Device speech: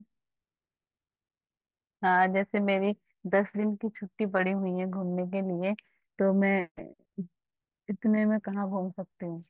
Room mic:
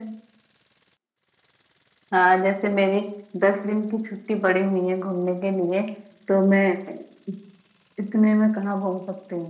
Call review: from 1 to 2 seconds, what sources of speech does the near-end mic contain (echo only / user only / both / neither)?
neither